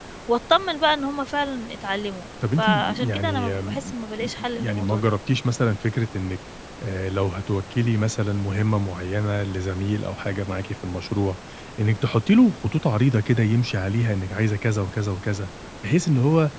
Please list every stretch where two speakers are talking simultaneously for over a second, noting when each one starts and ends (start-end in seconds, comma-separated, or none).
2.6-3.9